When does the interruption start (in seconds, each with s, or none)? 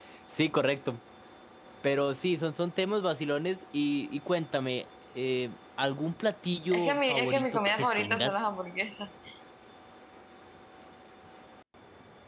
6.7 s